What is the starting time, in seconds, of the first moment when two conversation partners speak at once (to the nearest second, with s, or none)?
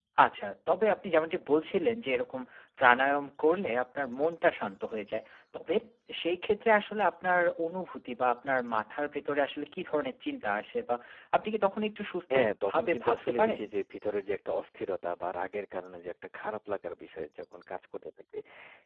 12 s